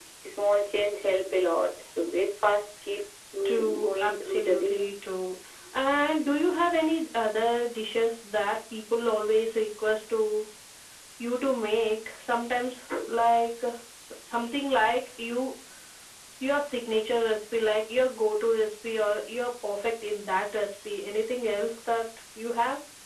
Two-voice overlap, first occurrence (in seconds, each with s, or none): 3.5 s